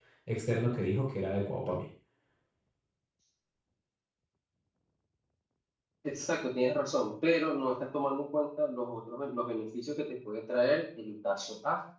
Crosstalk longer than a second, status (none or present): none